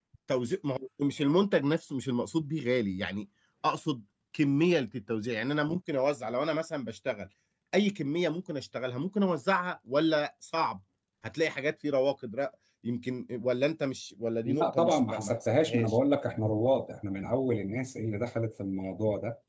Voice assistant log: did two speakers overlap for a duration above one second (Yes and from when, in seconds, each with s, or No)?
Yes, from 14.5 s